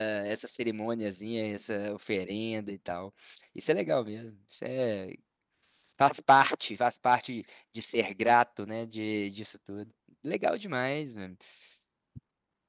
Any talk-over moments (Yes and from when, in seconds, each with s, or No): No